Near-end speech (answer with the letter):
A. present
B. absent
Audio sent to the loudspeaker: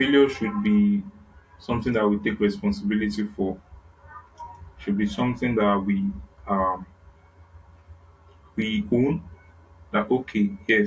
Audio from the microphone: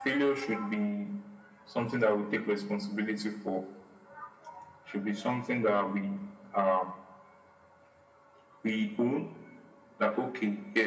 B